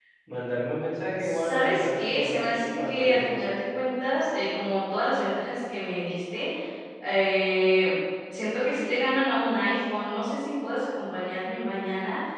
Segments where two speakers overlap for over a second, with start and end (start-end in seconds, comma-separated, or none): 1.2-3.5